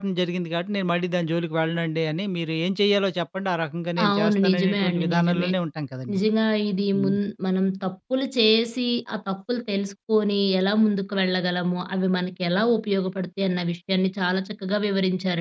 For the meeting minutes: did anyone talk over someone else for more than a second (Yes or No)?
Yes